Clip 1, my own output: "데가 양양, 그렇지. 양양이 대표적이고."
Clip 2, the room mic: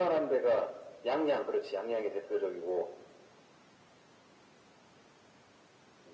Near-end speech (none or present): none